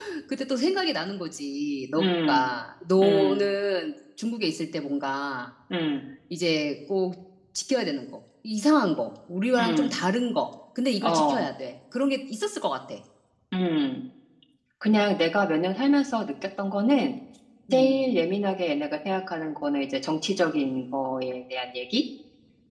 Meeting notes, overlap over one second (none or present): none